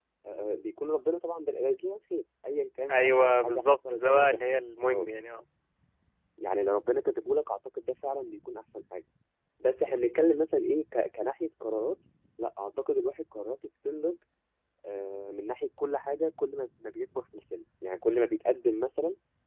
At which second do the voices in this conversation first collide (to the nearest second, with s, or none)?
3 s